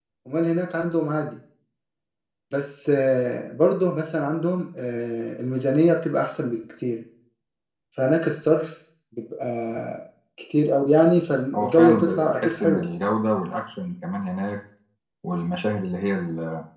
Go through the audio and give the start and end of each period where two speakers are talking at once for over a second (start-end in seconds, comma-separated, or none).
11.5-12.9